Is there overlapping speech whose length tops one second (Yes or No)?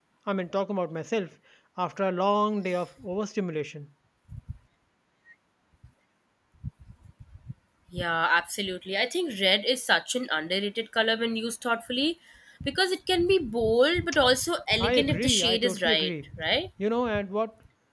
Yes